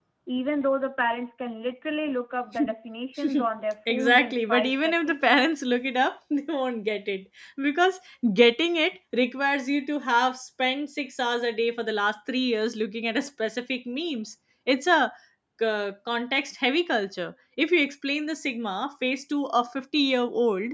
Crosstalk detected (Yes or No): Yes